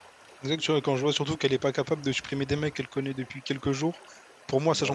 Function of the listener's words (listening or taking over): listening